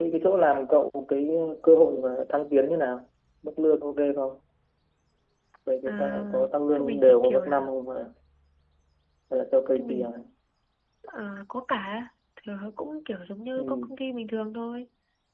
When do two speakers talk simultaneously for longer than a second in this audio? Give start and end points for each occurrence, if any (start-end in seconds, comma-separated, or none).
5.8-7.7